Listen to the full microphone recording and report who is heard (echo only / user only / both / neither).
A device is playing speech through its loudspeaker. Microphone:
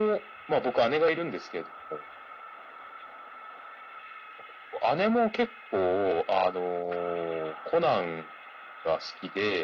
echo only